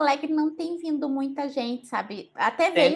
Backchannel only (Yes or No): Yes